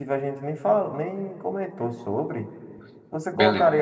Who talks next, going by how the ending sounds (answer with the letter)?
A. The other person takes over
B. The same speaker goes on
B